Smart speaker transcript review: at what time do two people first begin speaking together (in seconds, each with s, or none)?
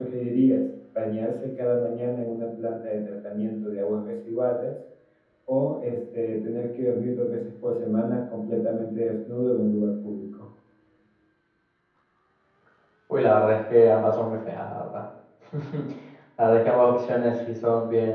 none